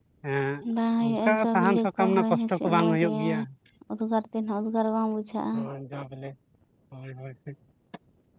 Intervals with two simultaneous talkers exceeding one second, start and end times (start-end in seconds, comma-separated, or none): 1.0-3.2